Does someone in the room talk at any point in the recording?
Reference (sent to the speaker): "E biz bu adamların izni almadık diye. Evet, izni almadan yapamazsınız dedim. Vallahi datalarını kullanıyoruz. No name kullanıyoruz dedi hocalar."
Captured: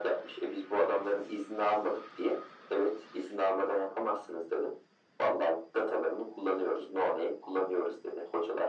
No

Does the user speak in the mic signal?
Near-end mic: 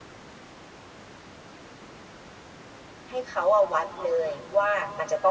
Yes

